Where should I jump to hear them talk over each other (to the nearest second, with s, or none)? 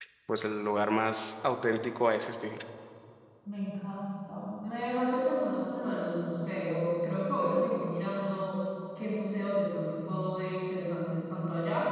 none